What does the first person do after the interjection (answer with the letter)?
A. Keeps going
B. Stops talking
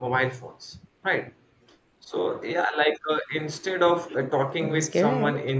A